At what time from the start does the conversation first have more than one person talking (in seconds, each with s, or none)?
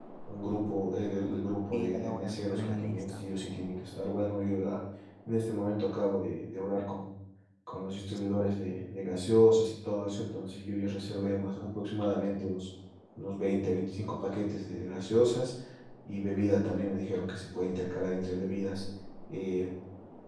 1.7 s